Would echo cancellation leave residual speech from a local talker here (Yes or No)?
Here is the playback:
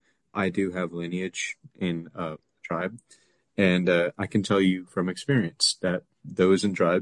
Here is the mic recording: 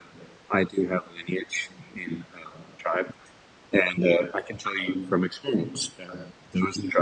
No